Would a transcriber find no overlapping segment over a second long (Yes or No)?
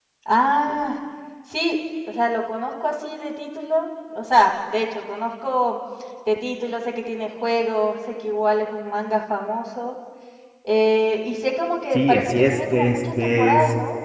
No